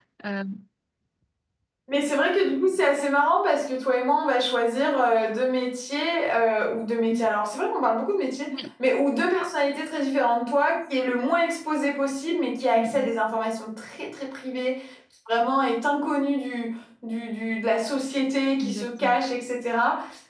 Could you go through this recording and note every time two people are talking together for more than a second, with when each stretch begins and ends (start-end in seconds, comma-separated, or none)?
none